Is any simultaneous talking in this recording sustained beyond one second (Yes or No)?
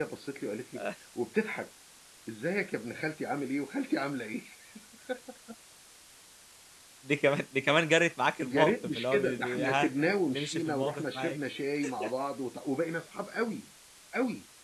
Yes